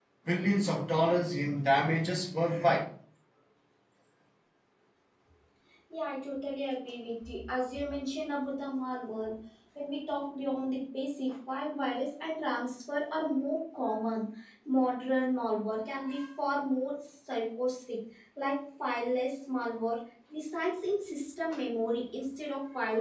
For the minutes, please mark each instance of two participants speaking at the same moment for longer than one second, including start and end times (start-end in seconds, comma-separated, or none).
none